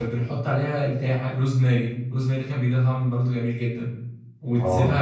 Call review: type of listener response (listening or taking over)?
listening